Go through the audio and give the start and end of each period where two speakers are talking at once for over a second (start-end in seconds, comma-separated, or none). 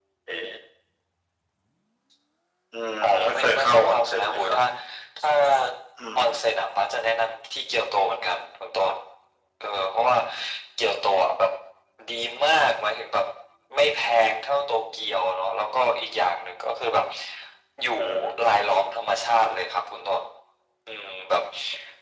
3.0-4.6